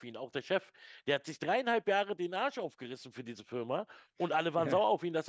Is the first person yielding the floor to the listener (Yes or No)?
No